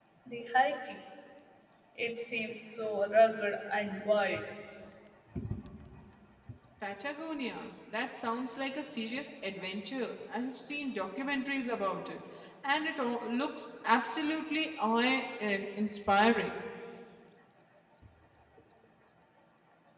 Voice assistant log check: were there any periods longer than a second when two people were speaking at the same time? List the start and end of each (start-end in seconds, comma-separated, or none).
none